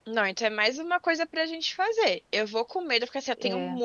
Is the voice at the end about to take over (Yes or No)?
No